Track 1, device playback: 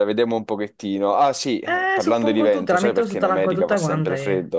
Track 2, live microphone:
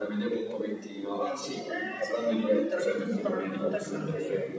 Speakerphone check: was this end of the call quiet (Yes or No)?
Yes